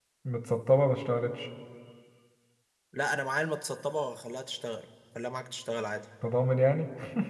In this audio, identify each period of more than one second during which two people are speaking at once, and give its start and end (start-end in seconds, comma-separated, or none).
none